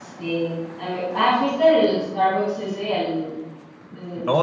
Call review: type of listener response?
taking over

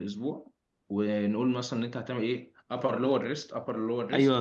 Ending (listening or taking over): taking over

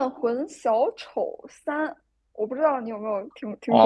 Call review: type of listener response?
taking over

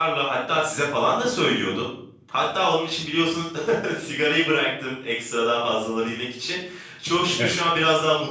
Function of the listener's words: listening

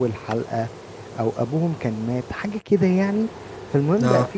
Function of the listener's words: listening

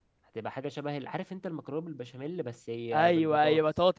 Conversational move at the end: taking over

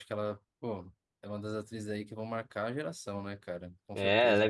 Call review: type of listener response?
taking over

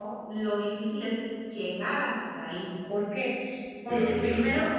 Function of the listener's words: listening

